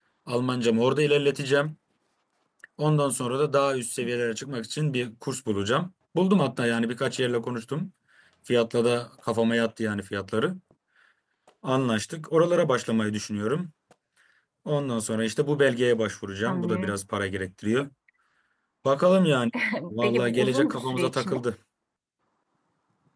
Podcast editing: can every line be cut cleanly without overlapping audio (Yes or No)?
No